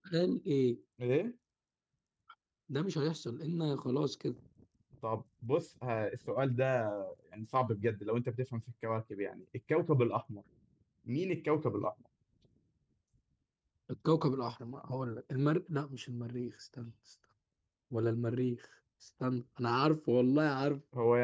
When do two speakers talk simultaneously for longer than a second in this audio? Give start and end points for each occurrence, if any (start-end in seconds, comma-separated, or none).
none